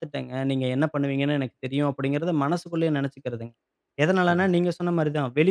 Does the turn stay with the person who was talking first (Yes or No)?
Yes